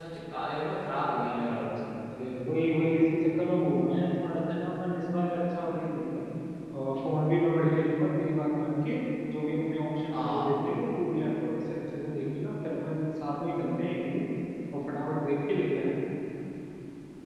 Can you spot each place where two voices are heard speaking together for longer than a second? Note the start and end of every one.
none

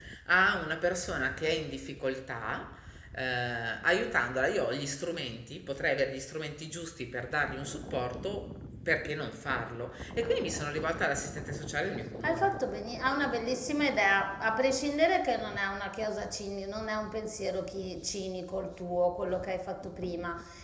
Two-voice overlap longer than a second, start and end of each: none

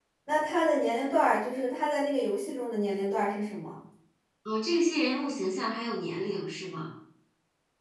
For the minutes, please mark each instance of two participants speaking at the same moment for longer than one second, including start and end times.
none

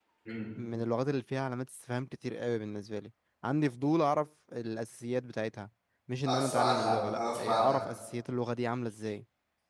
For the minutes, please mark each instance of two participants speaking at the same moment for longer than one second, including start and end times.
6.3-7.8

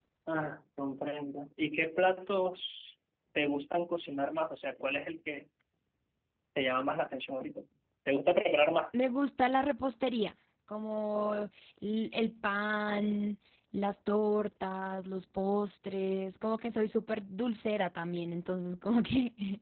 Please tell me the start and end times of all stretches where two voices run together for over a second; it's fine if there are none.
none

